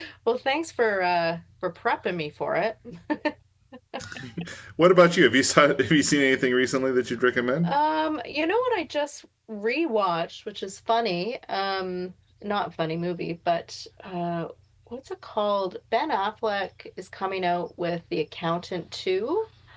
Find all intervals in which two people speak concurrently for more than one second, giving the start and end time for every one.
none

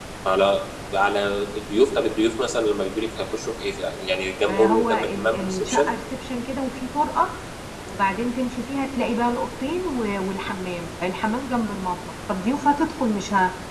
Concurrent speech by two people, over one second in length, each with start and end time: 4.5-5.9

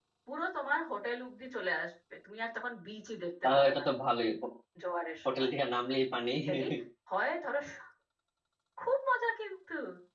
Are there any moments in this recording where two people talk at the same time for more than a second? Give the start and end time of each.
none

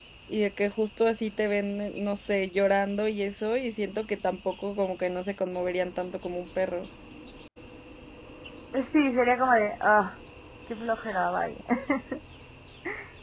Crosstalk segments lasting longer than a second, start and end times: none

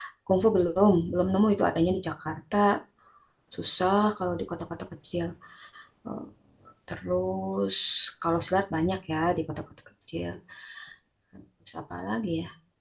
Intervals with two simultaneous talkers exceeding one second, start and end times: none

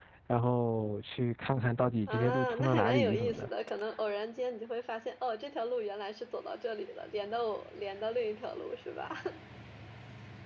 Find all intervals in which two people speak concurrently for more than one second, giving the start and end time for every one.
2.1-3.5

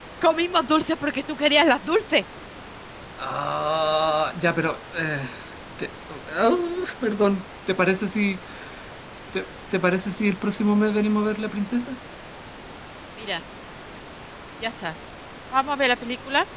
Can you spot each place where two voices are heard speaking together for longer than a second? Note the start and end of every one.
none

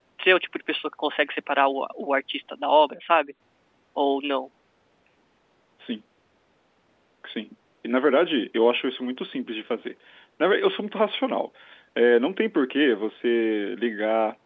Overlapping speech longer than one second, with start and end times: none

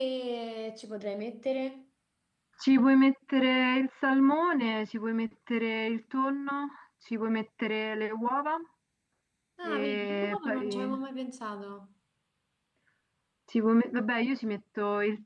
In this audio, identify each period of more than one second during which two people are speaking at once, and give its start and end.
9.6-10.9

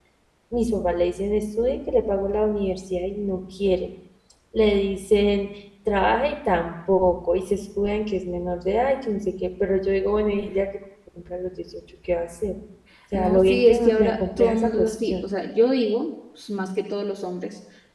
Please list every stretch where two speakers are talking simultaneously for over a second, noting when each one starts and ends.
13.1-15.1

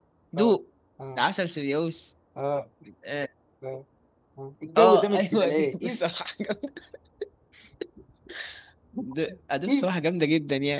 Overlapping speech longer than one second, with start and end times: 4.8-6.1

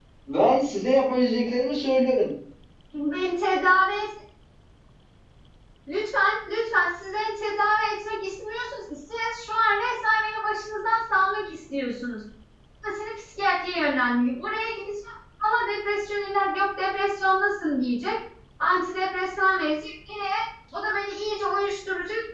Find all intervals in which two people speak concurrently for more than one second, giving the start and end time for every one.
none

